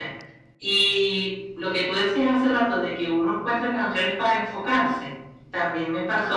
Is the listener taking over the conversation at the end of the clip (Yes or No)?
No